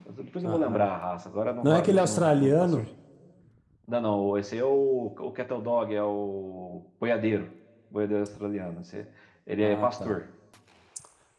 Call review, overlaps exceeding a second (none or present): present